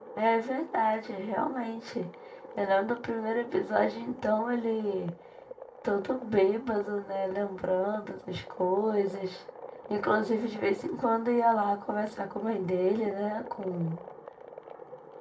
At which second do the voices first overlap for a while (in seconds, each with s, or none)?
none